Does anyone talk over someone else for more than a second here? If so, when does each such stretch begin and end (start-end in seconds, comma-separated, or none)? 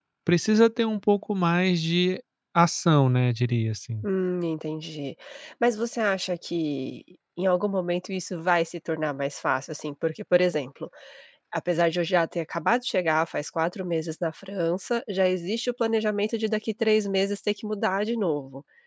none